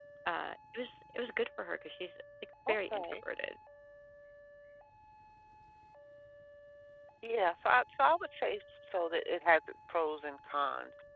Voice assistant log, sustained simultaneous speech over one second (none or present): none